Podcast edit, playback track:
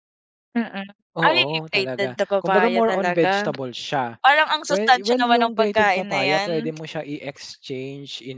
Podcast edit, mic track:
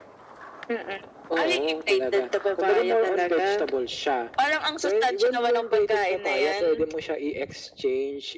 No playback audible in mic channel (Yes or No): No